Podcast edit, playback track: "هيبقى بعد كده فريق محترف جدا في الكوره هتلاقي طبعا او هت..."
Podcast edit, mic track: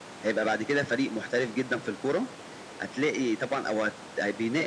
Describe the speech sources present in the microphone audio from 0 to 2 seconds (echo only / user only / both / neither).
echo only